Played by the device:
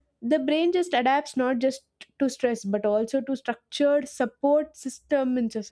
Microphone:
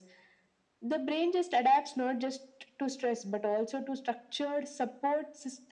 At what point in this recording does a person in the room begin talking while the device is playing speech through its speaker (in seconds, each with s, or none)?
none